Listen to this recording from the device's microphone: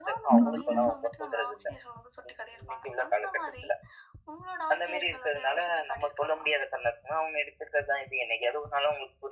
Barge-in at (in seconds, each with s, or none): 0.3 s